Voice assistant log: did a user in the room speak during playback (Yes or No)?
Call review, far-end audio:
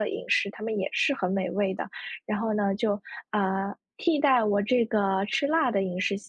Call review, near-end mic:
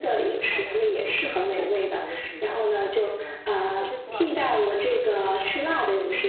Yes